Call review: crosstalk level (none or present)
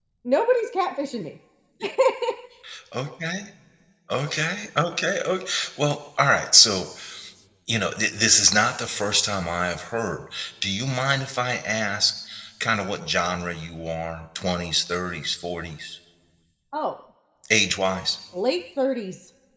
none